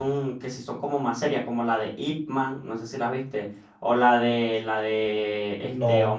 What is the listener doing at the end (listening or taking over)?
listening